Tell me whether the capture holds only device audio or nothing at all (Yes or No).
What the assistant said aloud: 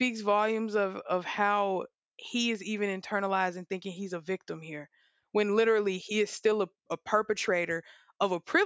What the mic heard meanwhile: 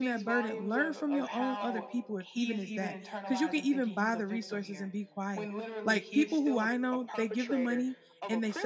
No